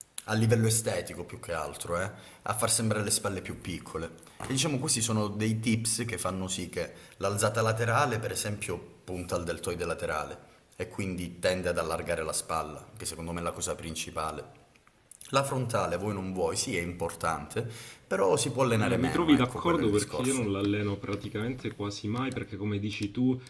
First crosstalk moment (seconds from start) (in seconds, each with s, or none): 18.8 s